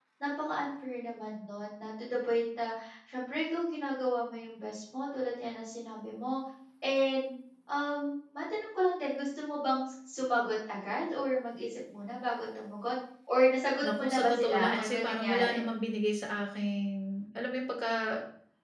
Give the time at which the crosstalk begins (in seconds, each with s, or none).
13.8 s